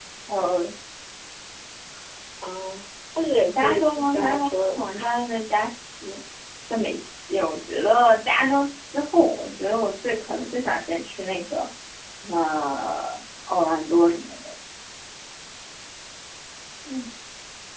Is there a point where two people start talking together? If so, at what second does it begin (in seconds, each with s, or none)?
3.4 s